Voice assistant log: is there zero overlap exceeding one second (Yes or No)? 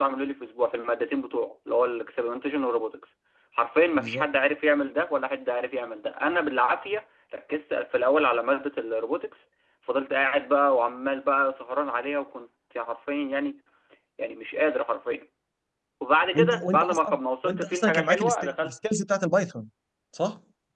No